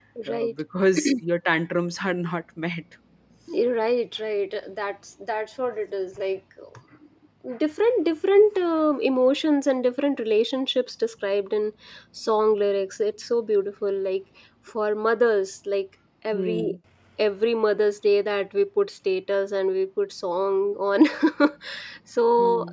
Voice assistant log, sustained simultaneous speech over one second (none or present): none